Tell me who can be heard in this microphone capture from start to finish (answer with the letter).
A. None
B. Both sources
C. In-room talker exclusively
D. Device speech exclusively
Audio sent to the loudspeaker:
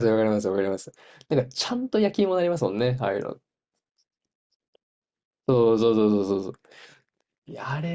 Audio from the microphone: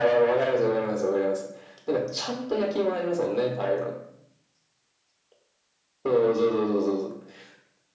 D